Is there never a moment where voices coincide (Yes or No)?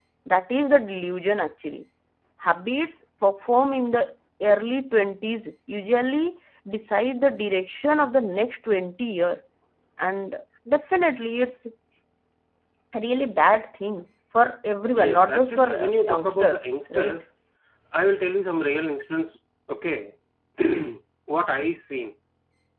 No